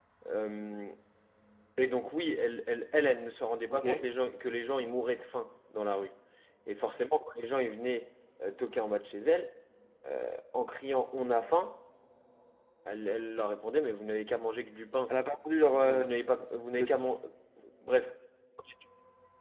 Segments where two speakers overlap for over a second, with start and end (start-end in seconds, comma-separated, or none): none